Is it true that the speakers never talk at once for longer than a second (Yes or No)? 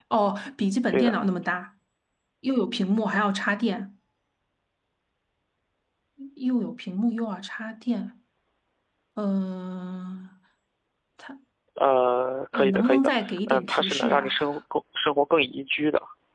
No